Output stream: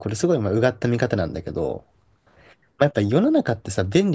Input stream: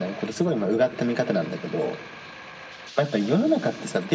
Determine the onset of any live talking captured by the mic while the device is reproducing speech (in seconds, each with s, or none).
none